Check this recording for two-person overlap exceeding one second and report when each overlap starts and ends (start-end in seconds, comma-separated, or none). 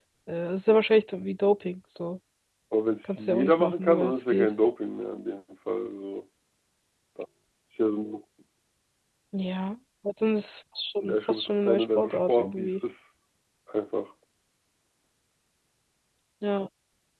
3.0-4.5, 11.1-12.7